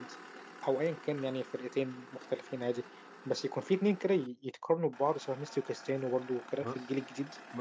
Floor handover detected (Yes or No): Yes